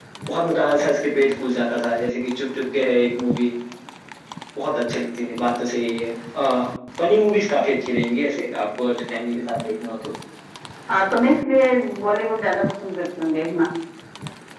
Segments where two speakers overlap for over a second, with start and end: none

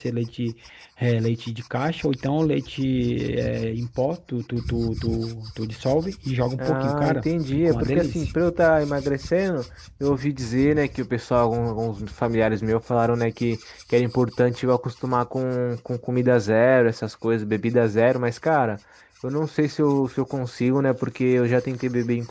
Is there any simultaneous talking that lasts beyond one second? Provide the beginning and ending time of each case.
6.6-8.3

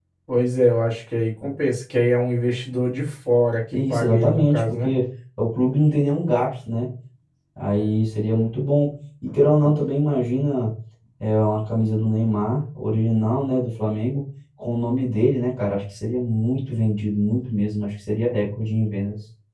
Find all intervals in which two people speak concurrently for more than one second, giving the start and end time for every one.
3.7-4.9

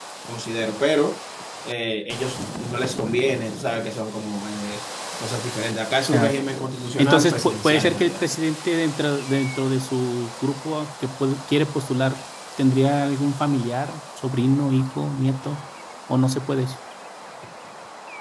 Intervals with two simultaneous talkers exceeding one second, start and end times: 7.0-8.3

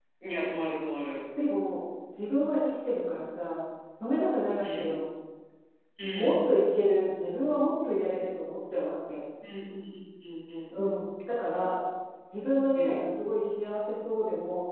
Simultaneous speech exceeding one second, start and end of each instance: none

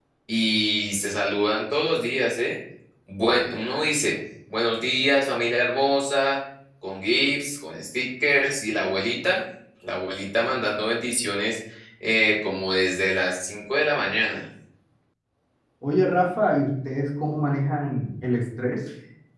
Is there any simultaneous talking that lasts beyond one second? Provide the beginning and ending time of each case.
none

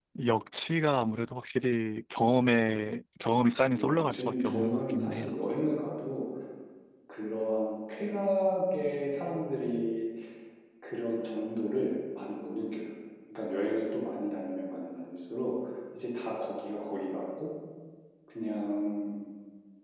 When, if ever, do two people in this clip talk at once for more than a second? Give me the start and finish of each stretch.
3.7-5.4

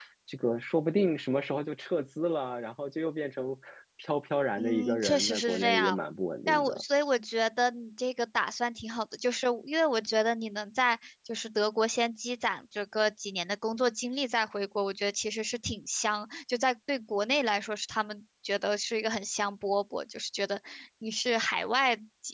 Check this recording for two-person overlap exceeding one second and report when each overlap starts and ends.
4.6-6.0

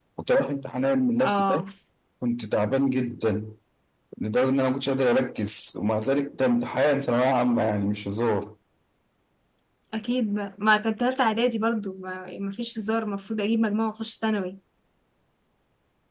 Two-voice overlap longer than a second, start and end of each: none

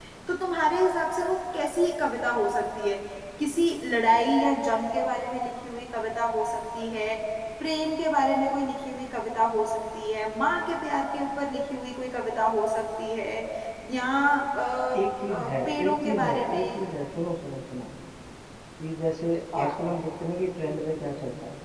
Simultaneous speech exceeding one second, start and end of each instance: 15.3-16.8

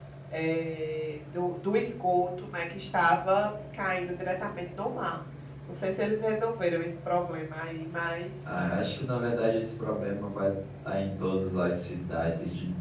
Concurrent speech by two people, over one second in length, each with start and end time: none

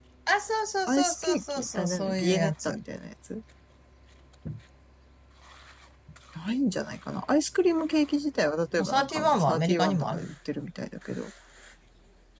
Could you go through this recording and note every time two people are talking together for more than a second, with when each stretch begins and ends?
0.9-2.7, 8.8-10.3

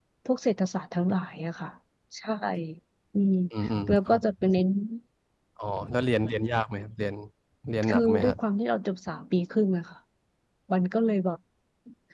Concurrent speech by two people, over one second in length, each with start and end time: none

